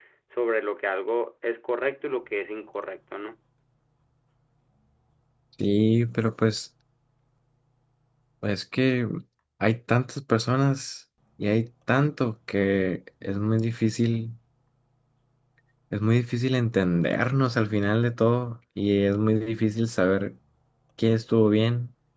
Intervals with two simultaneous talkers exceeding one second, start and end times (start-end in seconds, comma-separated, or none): none